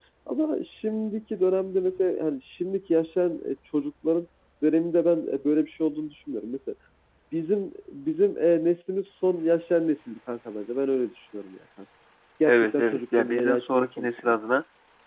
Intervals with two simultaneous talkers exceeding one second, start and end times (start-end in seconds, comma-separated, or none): 12.5-14.3